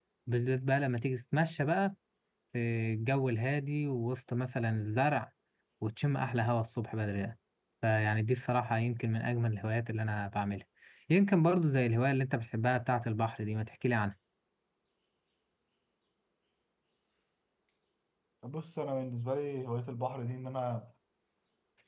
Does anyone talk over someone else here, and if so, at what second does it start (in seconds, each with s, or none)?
none